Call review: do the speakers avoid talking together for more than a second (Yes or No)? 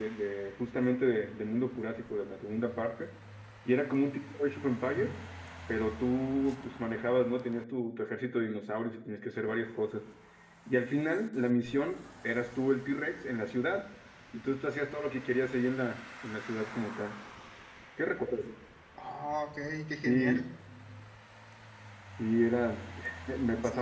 Yes